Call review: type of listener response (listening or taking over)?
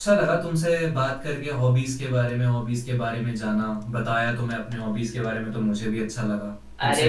taking over